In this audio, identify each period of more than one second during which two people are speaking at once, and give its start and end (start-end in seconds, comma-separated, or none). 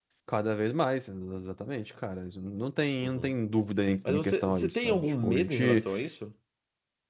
4.1-5.9